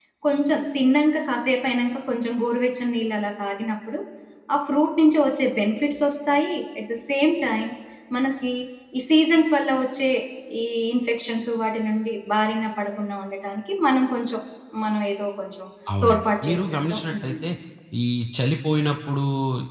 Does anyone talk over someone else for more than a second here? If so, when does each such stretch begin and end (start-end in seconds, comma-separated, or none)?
16.0-17.5